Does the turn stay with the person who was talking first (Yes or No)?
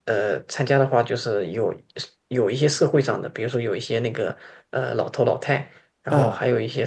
Yes